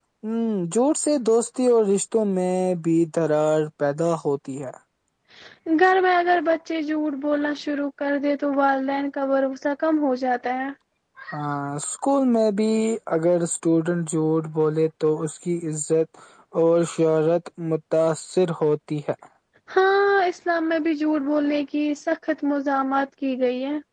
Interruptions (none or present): none